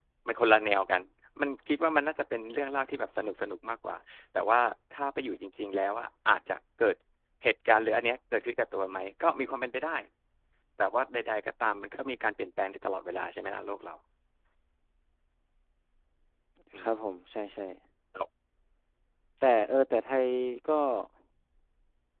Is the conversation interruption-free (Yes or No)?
Yes